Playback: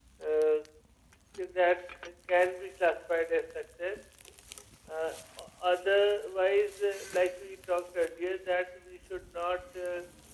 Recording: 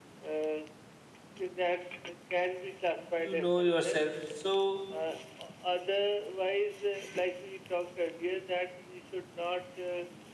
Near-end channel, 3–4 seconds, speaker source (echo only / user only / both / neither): both